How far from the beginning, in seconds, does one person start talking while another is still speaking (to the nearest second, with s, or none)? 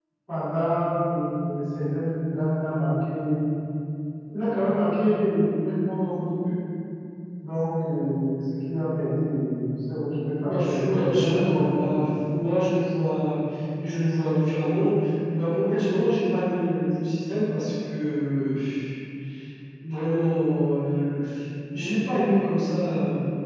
10 s